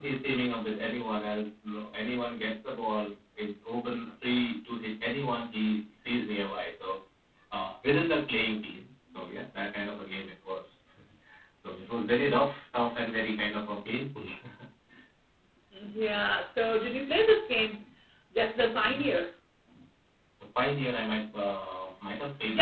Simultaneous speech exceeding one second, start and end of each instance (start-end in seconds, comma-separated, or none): none